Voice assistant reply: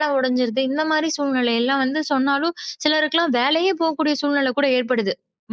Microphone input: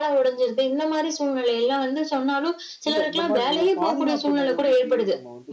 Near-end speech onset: 3 s

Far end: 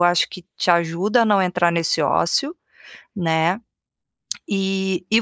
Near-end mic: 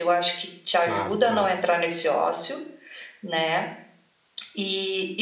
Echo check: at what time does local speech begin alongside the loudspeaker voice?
1 s

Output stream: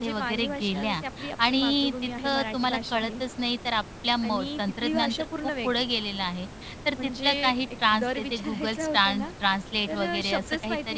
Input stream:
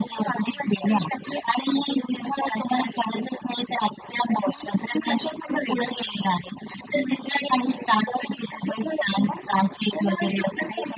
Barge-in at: none

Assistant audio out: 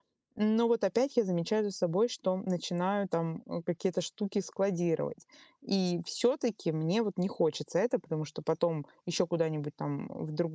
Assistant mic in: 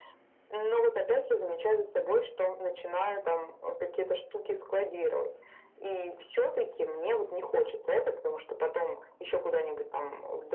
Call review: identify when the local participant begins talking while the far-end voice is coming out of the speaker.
none

